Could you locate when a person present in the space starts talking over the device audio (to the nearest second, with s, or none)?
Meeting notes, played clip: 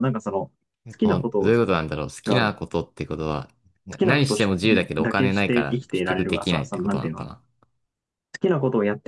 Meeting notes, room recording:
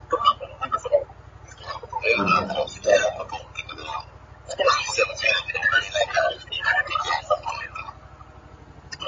2 s